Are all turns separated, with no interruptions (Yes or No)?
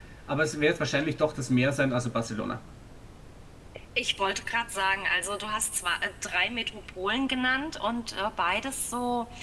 Yes